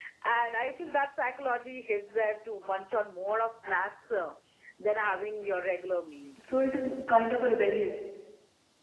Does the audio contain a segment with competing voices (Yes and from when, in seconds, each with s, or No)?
No